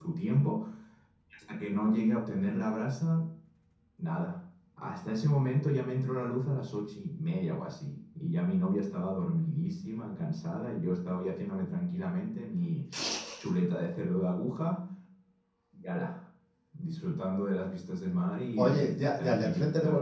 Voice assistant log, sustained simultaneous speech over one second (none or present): present